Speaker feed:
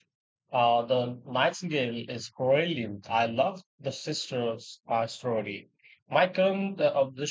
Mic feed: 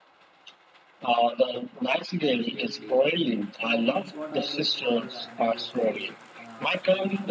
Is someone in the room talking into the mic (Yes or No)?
Yes